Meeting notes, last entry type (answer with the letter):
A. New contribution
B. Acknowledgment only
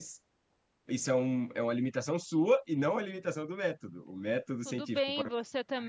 A